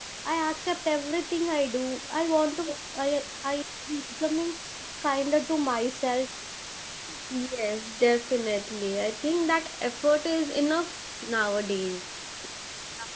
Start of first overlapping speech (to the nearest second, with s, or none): none